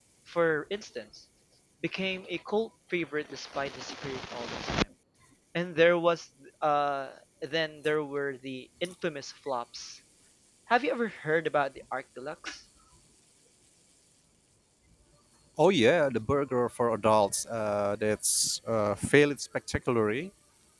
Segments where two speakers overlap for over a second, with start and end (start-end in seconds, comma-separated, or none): none